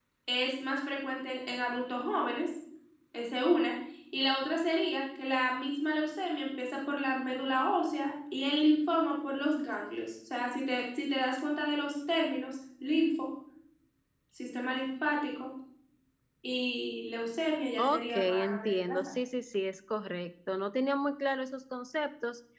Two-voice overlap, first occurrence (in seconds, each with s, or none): 17.8 s